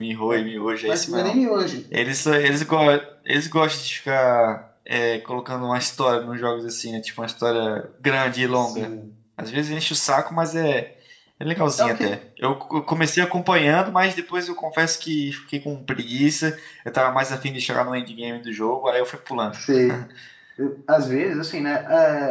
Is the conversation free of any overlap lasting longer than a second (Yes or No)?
Yes